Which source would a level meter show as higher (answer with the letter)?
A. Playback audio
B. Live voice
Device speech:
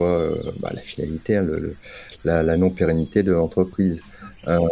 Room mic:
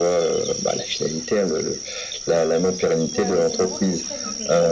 A